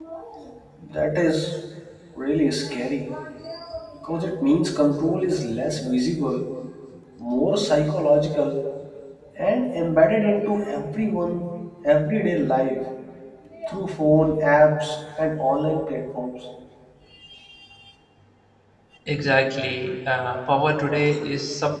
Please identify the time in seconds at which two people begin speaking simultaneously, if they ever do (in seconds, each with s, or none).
none